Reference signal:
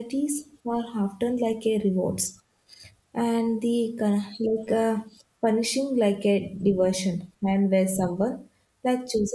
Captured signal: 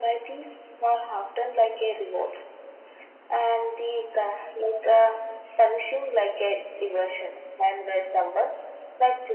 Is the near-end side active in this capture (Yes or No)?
No